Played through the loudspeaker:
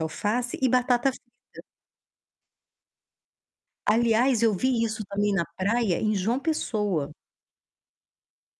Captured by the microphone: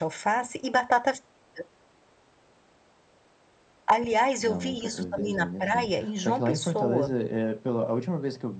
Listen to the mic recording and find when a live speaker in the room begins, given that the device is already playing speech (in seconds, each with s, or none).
4.4 s